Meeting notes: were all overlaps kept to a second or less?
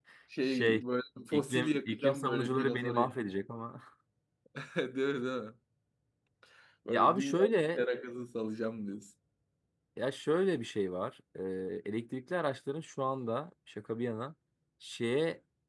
No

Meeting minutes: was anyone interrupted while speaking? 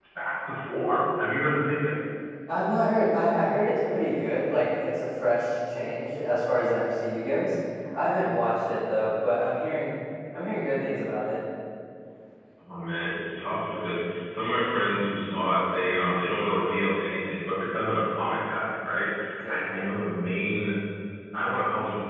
No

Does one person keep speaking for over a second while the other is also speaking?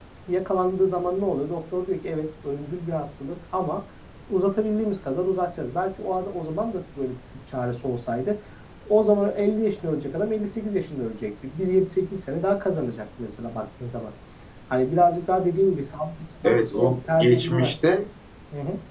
Yes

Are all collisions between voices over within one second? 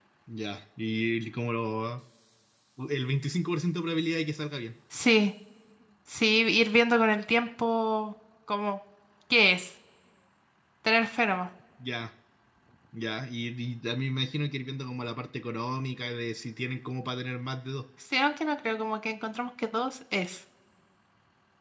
Yes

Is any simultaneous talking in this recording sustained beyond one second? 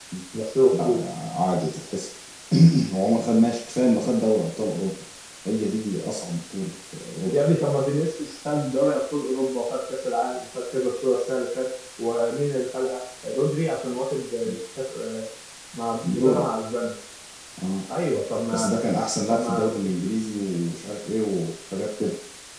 No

